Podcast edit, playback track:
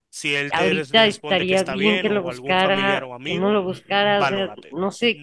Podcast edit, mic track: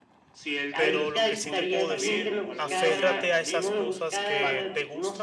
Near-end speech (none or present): present